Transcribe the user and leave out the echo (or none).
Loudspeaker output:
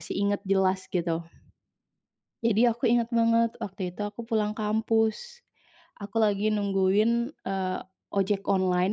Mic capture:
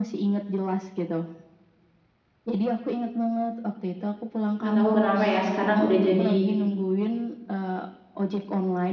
enggak tahu kenapa, ya, sekarang udah jadi